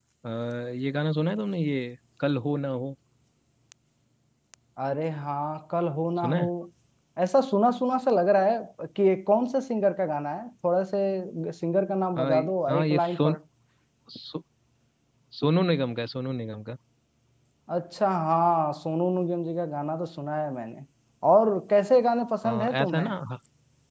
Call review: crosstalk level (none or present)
present